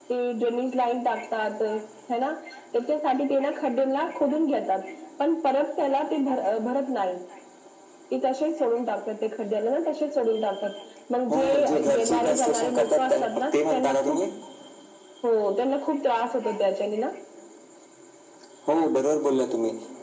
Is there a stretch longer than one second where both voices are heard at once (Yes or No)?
Yes